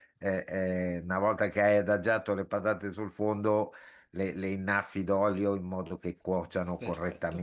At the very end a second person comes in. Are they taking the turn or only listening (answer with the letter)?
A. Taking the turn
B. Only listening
B